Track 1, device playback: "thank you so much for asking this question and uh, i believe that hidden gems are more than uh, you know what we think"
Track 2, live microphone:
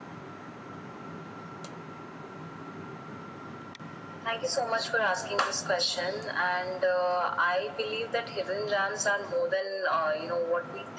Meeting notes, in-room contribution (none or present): none